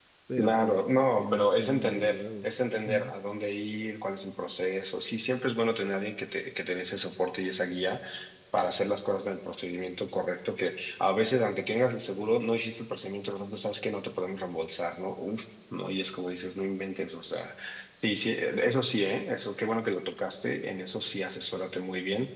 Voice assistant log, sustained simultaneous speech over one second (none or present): present